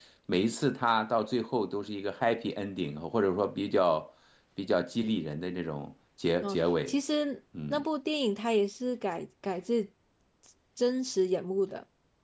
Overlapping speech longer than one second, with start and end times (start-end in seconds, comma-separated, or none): none